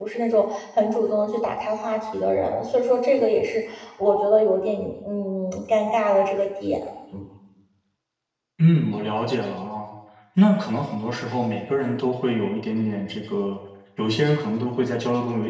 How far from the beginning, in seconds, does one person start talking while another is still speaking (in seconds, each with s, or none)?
none